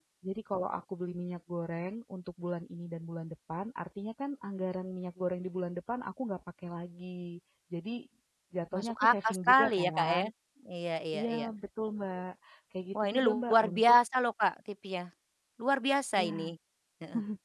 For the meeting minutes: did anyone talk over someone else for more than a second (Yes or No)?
Yes